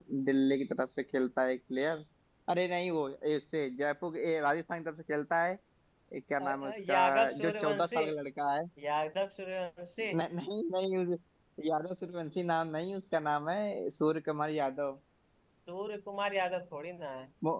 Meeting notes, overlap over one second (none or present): present